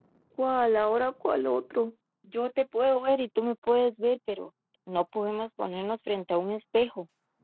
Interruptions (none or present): none